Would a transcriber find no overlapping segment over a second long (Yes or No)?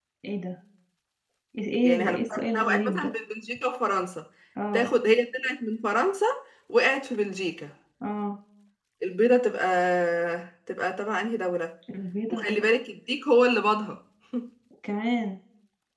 No